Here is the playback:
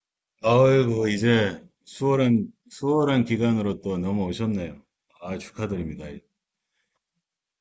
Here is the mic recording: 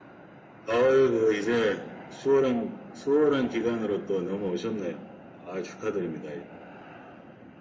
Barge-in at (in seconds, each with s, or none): none